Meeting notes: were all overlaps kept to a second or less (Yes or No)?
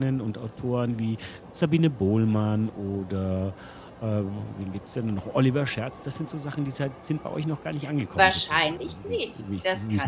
No